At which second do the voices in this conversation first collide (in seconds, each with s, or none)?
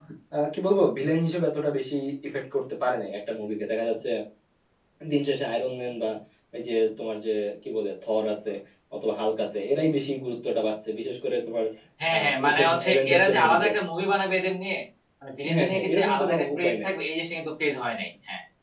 12.1 s